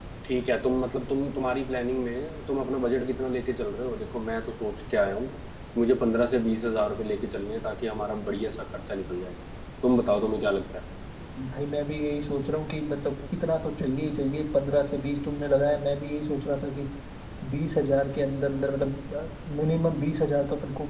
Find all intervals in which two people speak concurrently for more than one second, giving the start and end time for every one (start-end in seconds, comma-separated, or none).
none